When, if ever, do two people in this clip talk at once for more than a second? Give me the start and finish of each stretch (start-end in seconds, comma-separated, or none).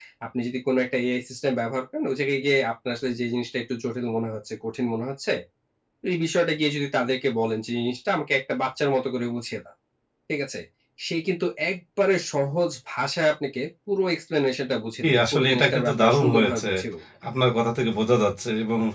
15.0-16.7